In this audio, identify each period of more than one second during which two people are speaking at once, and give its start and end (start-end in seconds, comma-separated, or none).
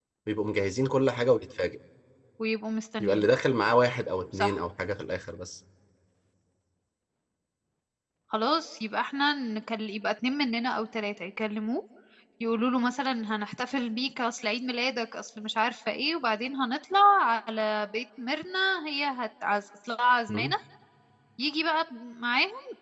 none